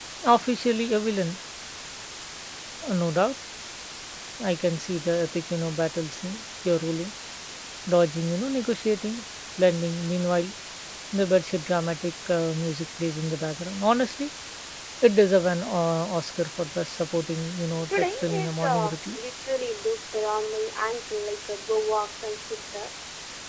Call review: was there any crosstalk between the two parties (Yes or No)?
Yes